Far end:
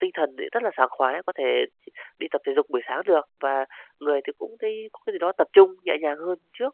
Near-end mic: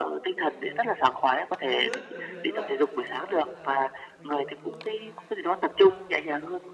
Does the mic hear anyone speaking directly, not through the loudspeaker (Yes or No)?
Yes